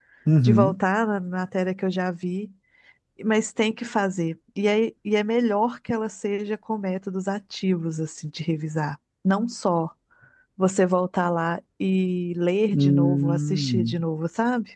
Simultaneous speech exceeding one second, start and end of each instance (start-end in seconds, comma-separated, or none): 12.7-14.0